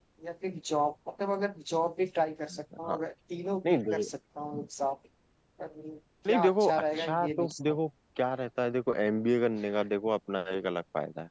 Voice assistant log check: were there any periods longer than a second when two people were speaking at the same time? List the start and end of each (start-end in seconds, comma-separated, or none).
6.3-7.8